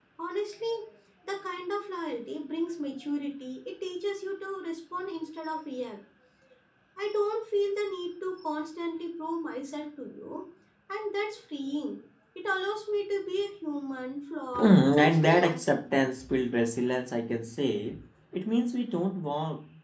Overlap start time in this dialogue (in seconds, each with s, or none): 14.5 s